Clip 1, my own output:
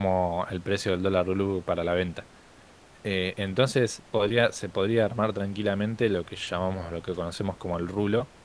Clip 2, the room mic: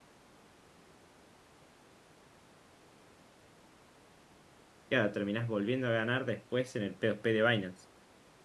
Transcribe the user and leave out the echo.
claro, terminás volviendo a ganar después en el P2P de Binance.

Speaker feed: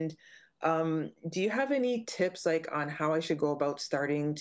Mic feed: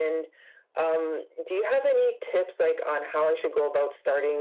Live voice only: none

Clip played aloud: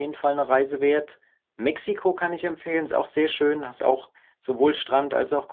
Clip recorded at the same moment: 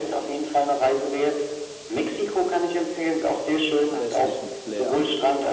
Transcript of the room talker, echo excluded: westlichen Flair.

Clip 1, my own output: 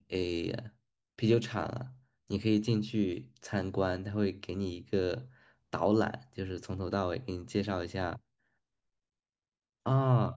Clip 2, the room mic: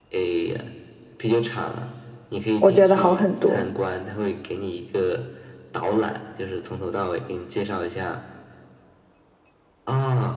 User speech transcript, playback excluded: 我觉得好很多，

